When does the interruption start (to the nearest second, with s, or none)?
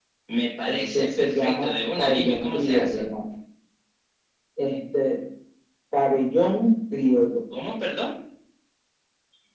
1 s